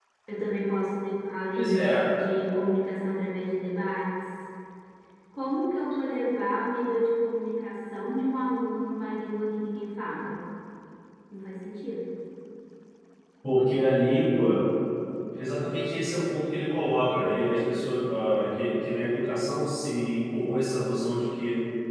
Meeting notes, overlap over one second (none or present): none